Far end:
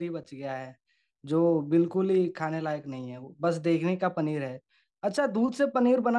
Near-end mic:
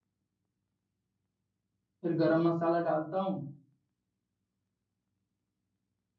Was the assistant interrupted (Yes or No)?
Yes